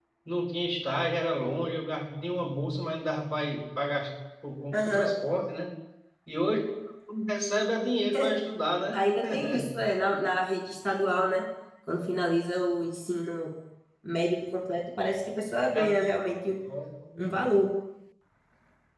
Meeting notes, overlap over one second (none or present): none